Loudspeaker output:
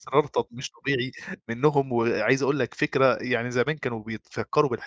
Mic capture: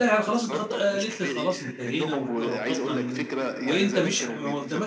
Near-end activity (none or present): present